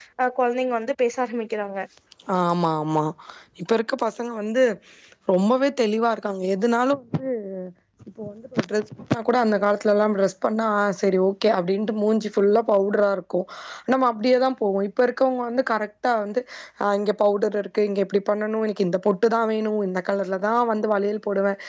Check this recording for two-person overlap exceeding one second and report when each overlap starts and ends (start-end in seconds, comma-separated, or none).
none